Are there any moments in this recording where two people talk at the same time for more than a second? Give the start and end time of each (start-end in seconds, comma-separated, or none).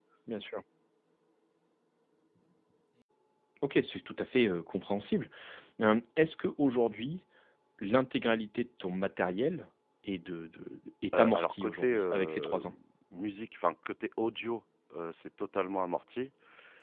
11.2-12.6